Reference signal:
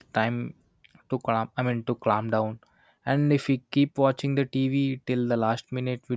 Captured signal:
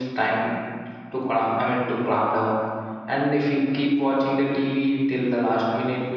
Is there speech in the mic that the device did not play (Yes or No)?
No